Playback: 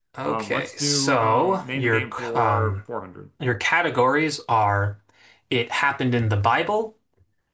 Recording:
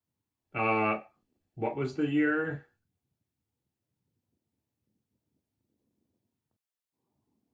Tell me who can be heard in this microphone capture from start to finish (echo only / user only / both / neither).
user only